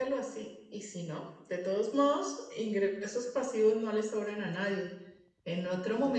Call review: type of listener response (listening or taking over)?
listening